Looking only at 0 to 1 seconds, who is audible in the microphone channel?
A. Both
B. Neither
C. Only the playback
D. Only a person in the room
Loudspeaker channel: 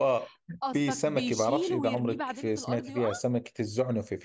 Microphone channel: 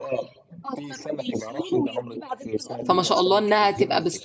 C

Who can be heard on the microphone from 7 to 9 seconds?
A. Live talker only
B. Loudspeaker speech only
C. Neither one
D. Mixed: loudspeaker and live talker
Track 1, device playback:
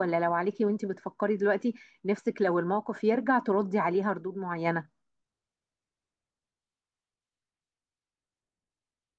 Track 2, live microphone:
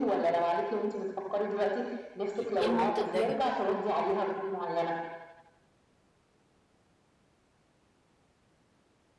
C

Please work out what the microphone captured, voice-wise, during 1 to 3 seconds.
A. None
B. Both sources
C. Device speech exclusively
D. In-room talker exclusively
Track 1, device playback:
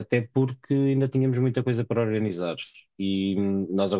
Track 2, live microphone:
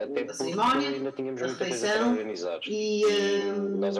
B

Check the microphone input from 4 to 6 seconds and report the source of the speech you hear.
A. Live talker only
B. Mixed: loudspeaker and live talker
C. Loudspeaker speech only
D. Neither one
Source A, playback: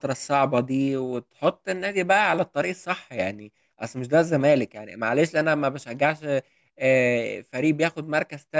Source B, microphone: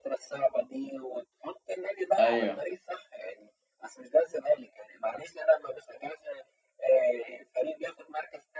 C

